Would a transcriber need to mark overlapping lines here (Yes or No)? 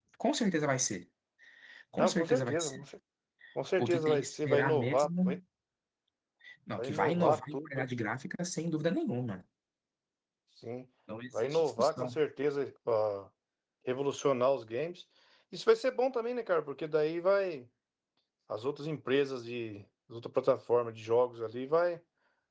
Yes